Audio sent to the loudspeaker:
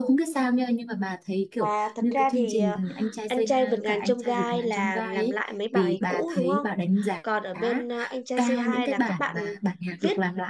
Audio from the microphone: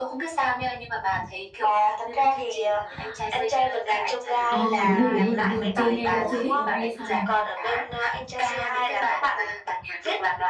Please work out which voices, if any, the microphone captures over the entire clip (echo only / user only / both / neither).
both